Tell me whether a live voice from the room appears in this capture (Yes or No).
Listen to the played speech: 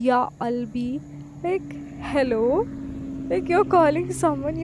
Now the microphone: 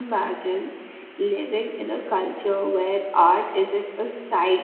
Yes